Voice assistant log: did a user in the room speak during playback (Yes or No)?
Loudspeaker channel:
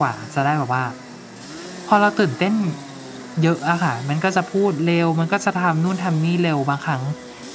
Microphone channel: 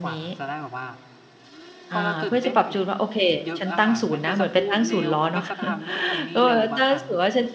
Yes